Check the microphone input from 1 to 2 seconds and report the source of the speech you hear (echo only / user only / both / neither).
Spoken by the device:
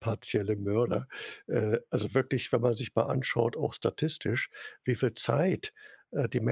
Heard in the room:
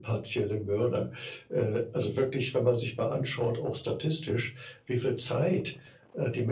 echo only